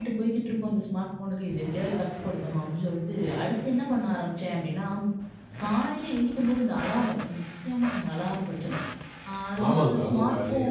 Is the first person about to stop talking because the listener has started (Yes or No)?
Yes